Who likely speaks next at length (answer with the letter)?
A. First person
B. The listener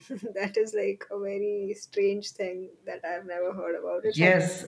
B